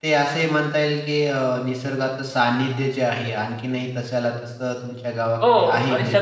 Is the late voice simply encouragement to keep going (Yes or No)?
No